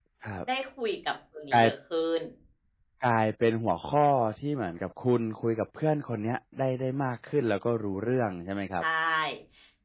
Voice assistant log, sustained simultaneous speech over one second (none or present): none